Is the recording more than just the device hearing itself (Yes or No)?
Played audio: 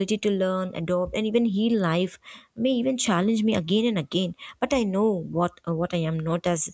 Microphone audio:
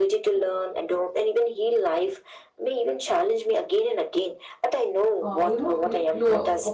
Yes